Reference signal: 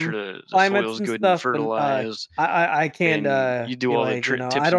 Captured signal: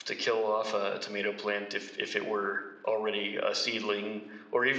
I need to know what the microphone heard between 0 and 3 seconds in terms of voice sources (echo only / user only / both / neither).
user only